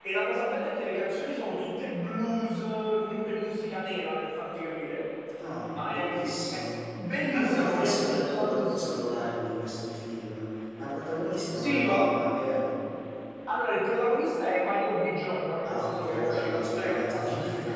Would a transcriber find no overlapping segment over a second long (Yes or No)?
No